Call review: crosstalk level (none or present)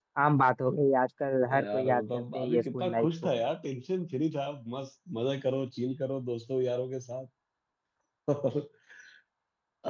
present